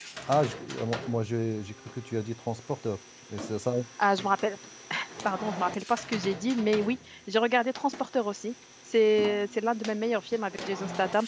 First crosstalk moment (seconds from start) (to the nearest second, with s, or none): none